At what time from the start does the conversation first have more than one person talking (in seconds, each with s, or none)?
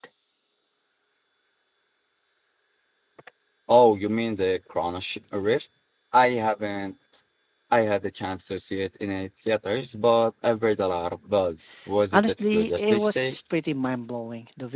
12.1 s